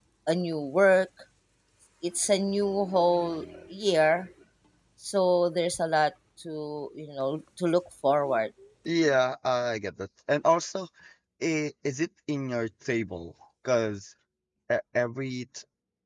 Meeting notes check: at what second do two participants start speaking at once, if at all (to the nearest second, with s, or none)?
none